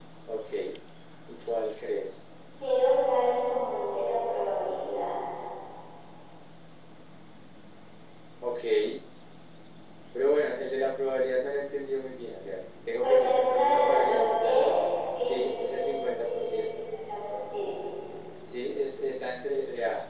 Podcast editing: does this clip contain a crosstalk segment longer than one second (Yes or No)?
Yes